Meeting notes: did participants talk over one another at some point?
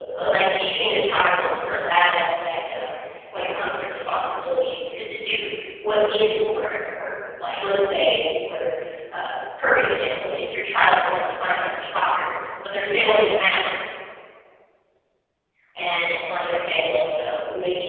No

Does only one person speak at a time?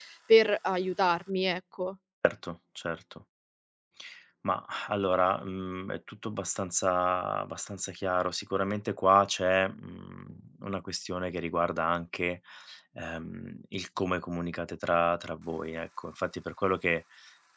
Yes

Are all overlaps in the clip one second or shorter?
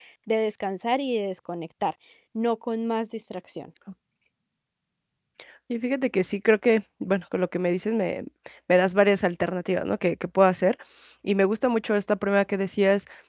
Yes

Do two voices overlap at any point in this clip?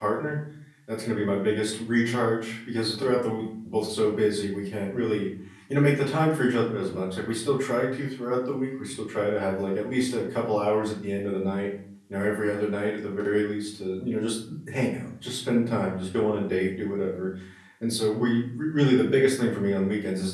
No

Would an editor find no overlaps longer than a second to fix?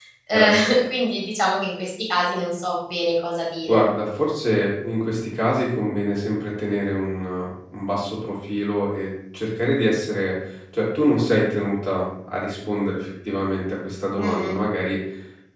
Yes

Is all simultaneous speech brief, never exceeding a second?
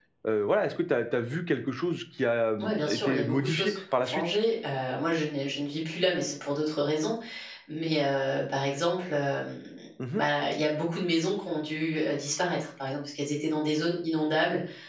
No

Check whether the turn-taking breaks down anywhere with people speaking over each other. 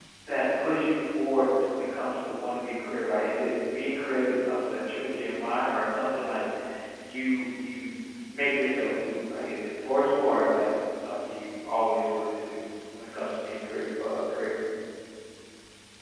No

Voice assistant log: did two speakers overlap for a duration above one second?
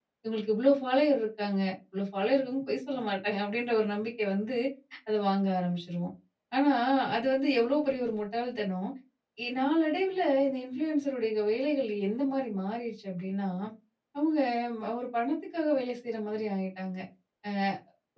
No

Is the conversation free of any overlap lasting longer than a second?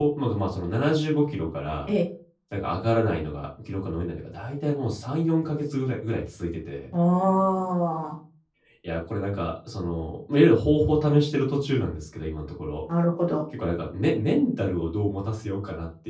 Yes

